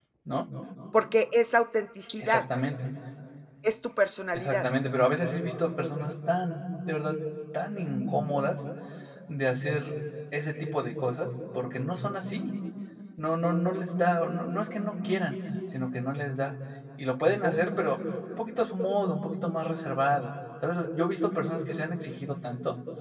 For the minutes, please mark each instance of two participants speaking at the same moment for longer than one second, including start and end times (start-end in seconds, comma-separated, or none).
none